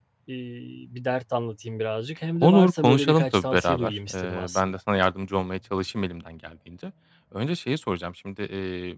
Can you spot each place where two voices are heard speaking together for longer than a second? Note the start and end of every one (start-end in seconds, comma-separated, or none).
2.4-4.8